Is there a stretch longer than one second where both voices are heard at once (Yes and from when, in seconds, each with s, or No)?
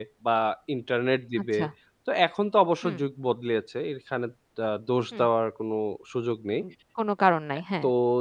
No